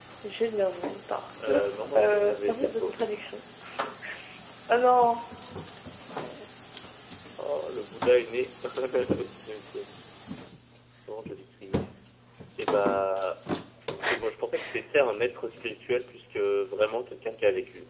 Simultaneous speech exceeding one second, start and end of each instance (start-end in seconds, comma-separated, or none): 1.4-3.0